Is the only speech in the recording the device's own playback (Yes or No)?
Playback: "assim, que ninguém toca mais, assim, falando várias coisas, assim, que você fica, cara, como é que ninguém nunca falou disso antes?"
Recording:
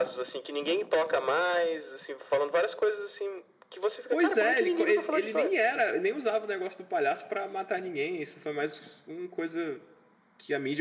No